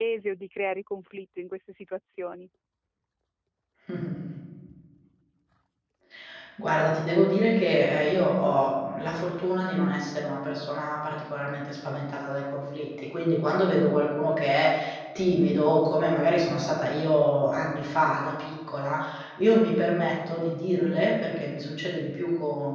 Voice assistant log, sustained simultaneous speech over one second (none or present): none